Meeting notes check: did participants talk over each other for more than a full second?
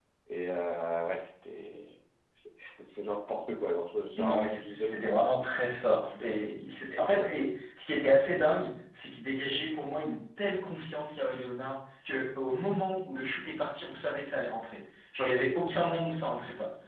Yes, from 4.2 s

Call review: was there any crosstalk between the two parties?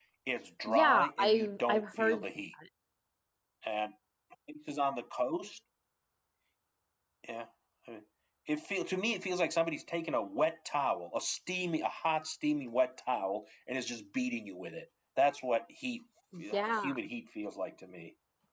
Yes, from 0.7 s

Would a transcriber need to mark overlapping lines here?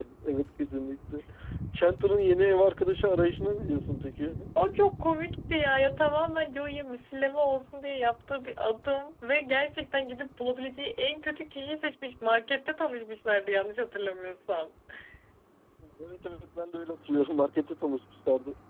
No

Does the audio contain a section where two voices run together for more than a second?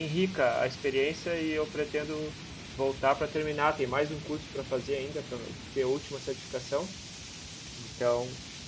No

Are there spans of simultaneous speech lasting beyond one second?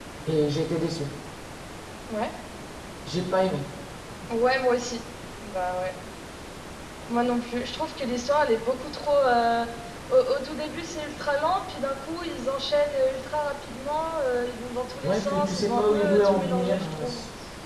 Yes, from 15.0 s

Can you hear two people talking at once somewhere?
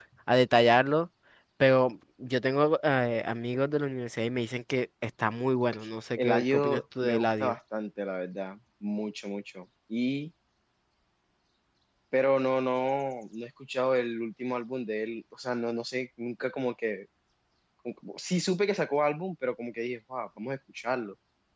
Yes, from 6.2 s

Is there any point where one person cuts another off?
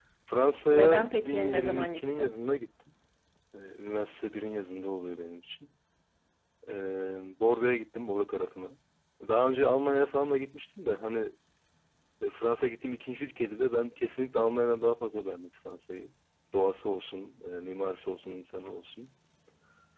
Yes, from 0.7 s

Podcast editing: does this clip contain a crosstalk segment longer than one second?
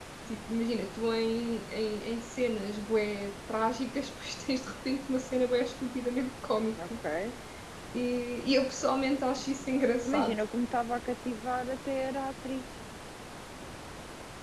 No

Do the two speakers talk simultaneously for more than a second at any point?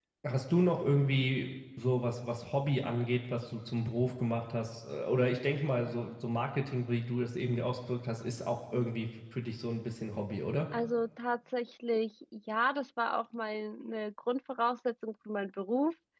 No

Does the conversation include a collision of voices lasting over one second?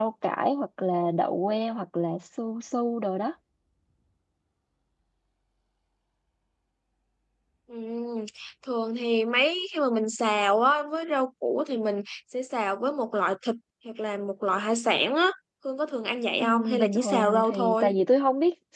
Yes, from 16.4 s

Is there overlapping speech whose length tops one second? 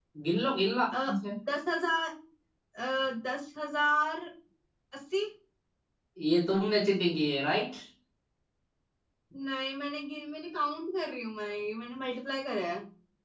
No

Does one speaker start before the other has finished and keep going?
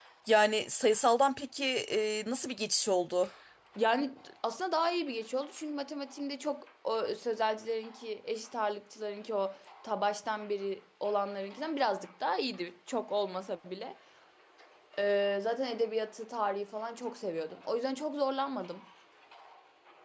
No

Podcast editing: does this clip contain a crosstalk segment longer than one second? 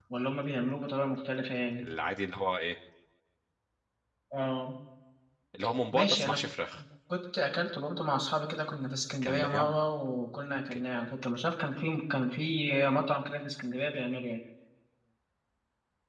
No

